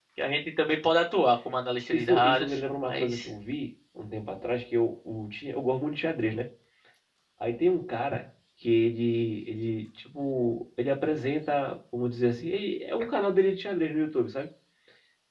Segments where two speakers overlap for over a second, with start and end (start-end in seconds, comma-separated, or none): 1.9-3.3